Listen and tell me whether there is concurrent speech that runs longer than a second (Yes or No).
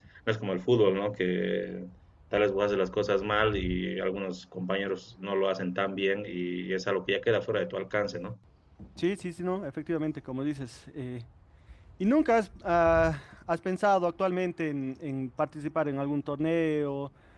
No